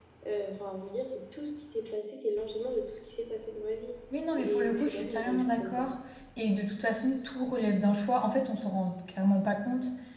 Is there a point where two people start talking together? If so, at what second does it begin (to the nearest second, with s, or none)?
4 s